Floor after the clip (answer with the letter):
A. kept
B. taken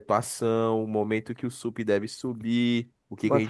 A